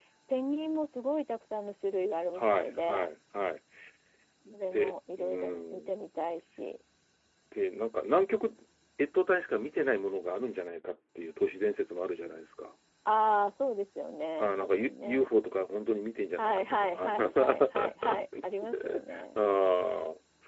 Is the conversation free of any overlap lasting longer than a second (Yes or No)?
No